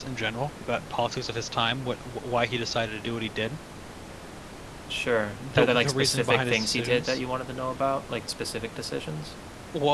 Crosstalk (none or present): present